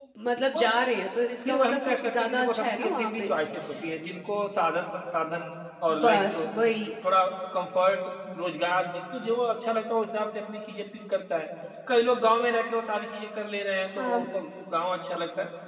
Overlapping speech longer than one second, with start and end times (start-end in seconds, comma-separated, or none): 1.4-3.3